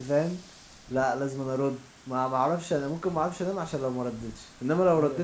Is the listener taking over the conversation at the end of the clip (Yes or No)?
Yes